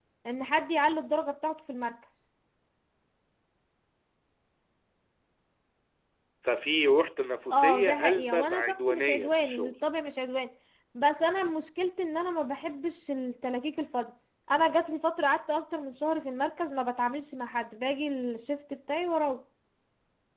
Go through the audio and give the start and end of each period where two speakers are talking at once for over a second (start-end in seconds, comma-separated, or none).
7.5-9.7